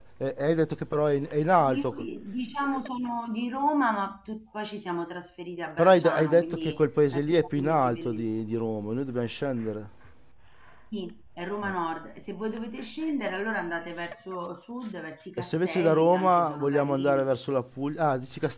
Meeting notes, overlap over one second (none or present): present